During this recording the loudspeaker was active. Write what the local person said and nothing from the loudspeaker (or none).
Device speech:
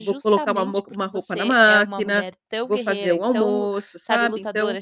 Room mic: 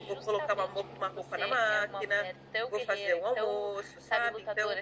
none